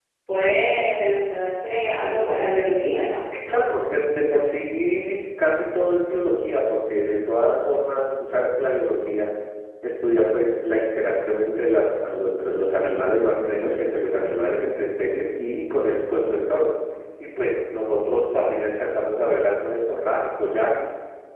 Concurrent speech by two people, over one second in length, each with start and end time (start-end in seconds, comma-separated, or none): none